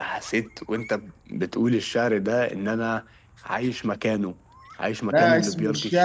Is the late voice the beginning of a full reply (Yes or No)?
Yes